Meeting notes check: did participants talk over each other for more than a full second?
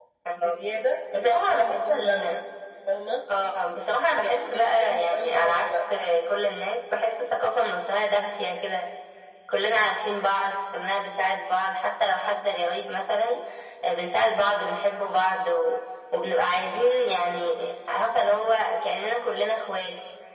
Yes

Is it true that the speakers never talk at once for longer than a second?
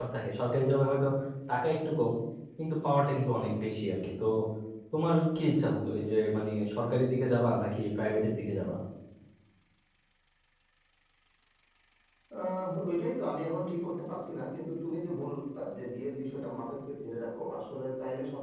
Yes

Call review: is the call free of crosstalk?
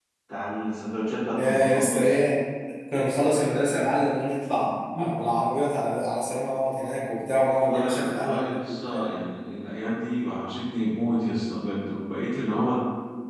No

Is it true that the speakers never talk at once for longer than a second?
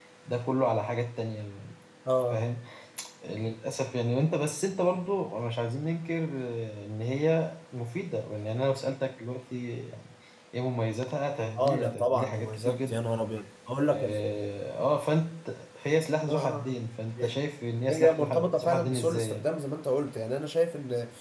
No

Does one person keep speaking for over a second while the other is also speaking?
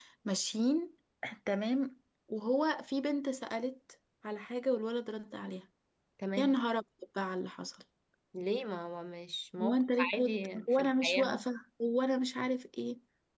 Yes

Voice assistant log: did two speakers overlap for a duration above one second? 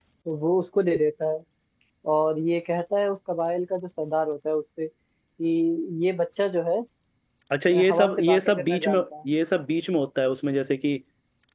Yes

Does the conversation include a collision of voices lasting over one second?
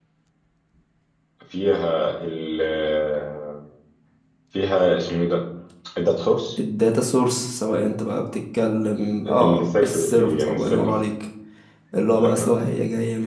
Yes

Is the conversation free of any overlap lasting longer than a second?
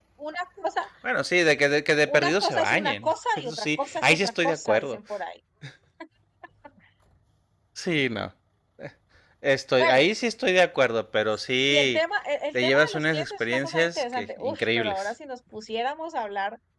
No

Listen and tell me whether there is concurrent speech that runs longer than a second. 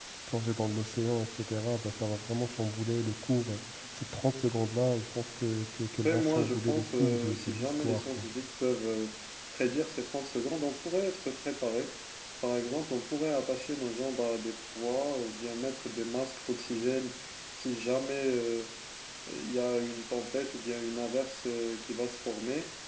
Yes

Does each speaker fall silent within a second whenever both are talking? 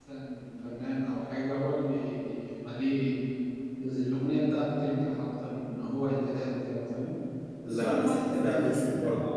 No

